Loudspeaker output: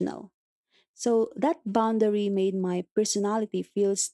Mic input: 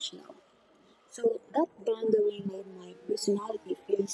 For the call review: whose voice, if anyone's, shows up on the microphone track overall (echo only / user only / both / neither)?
echo only